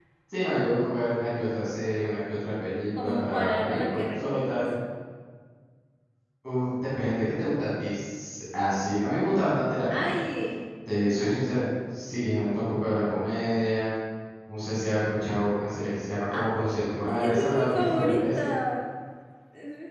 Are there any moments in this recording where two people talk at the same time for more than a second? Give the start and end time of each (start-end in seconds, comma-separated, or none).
3.0-4.5, 17.0-18.6